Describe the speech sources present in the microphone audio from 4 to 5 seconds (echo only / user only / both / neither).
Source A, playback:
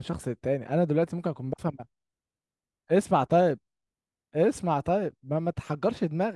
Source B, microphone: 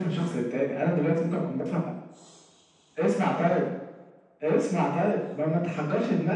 echo only